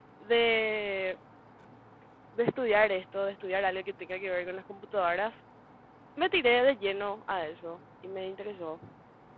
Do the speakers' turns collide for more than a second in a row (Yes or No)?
No